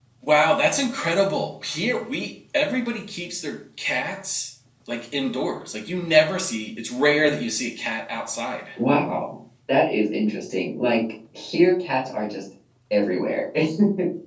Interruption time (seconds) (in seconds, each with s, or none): none